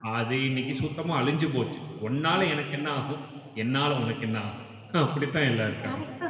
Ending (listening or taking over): taking over